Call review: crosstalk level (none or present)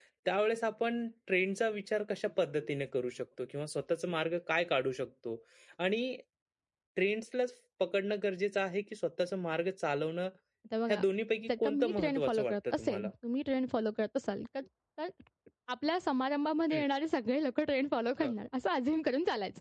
present